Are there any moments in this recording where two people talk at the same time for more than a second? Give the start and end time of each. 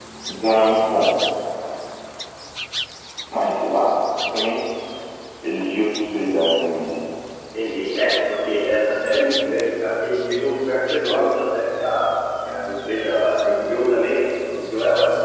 none

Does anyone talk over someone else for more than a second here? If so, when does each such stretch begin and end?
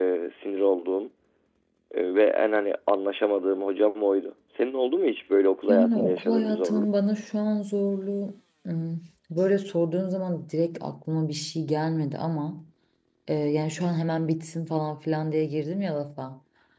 5.7-6.9

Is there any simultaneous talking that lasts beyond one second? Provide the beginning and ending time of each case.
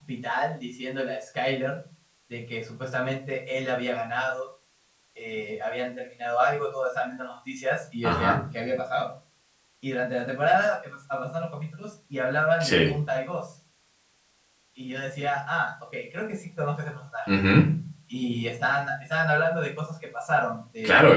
none

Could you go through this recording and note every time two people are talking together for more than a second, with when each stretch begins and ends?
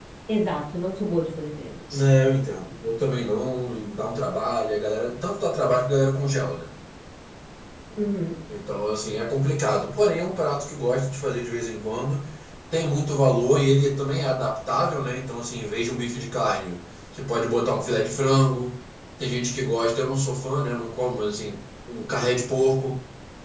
none

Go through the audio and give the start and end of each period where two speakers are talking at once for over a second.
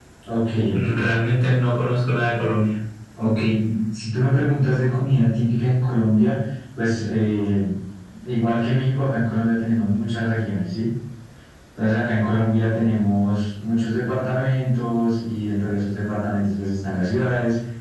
none

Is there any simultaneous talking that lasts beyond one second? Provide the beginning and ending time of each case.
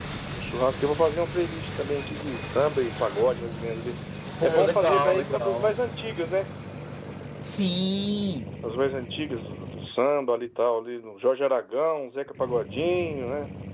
4.4-5.7

